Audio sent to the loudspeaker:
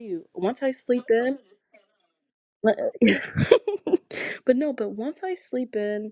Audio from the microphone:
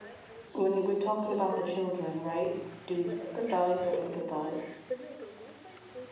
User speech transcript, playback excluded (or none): when we're talking about the children right do we sympathize or empathize